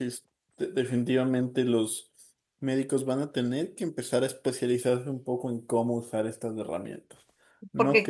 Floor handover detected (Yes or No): Yes